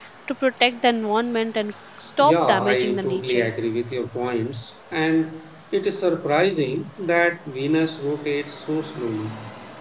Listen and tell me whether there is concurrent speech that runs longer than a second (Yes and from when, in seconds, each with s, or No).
Yes, from 2.2 s